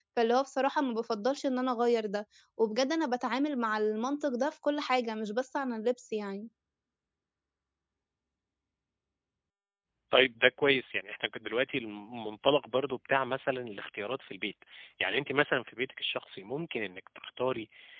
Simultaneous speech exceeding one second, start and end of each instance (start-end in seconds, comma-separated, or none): none